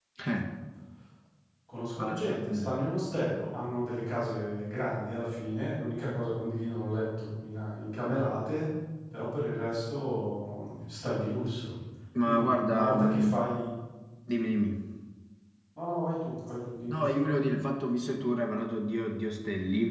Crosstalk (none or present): present